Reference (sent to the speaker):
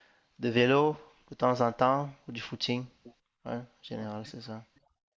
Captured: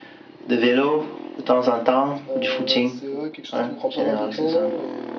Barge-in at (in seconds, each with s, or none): 2.3 s